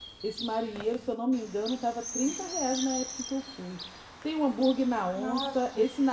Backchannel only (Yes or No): Yes